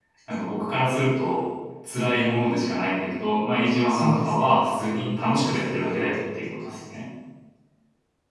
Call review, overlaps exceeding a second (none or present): present